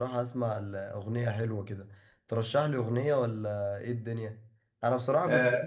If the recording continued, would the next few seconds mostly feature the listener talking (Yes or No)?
Yes